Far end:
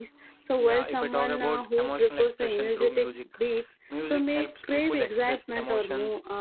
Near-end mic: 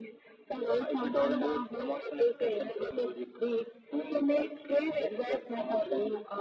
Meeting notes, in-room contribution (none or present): none